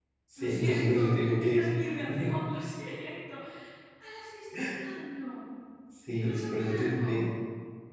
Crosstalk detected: Yes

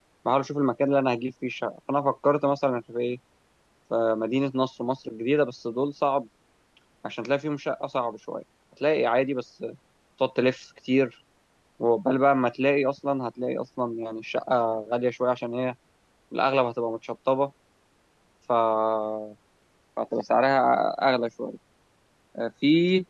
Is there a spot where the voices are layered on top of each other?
No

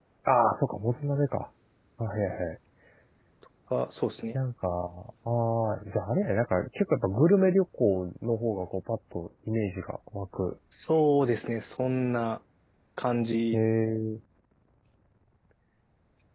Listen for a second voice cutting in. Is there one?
No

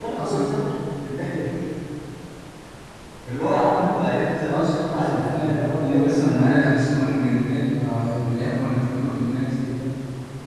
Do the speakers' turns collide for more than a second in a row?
Yes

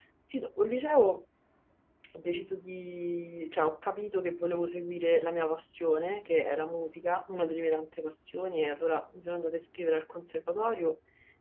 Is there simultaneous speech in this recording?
No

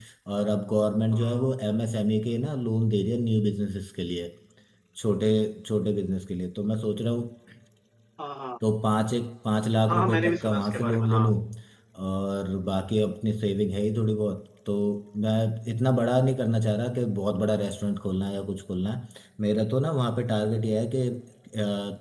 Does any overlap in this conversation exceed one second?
Yes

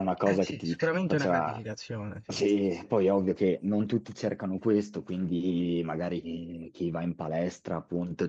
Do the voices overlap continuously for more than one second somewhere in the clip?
Yes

